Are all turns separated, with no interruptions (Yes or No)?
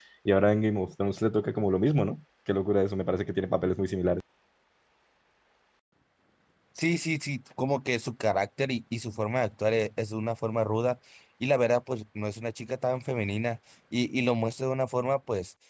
Yes